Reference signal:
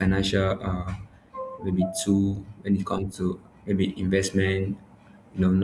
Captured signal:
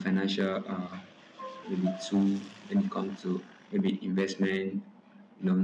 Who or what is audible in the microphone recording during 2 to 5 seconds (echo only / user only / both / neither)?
echo only